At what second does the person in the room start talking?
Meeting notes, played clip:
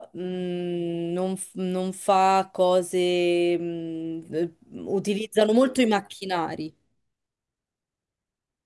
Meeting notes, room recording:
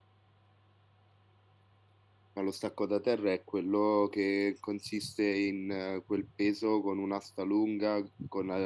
2.3 s

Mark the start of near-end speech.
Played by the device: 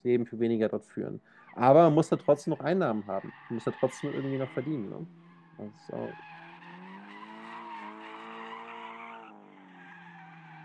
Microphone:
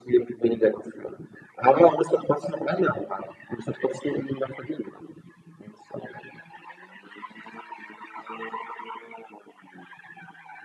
none

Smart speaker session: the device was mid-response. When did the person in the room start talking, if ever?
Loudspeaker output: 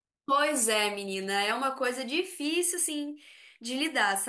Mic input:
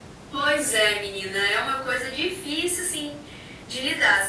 none

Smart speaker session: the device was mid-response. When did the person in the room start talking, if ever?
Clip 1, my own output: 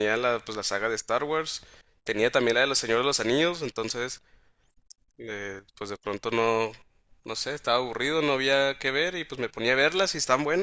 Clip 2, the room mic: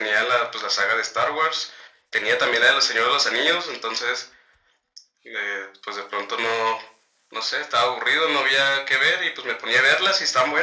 none

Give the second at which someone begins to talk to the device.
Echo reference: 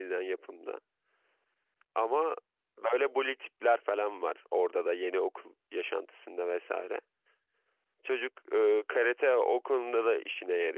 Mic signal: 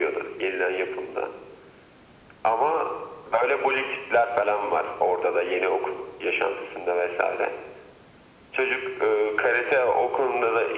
none

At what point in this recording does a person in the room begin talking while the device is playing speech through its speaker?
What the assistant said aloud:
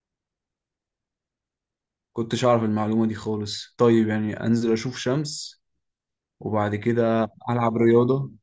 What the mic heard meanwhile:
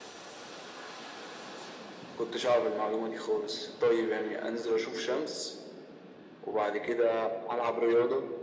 none

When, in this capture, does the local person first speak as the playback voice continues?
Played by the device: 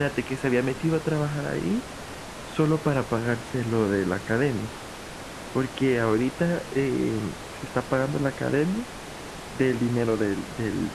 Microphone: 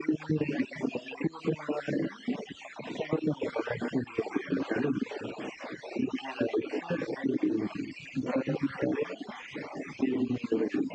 none

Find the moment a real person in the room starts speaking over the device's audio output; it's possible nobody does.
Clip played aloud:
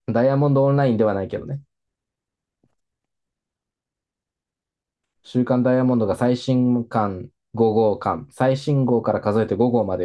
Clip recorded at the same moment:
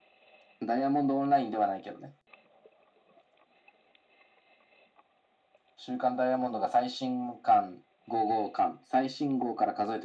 none

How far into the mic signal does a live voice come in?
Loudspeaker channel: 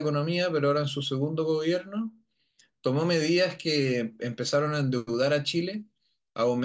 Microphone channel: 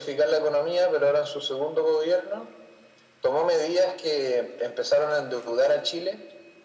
none

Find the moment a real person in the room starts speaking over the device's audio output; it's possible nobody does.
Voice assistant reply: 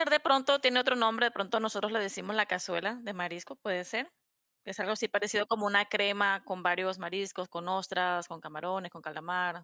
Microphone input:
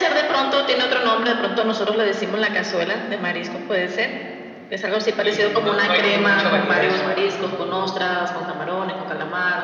5.2 s

